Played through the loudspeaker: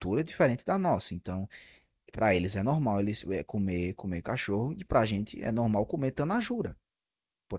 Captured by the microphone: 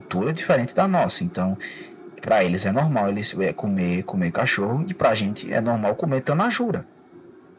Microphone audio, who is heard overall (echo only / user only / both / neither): echo only